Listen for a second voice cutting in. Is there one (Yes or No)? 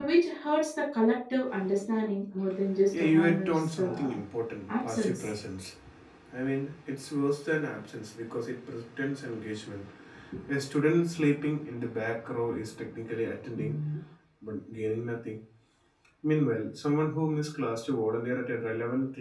Yes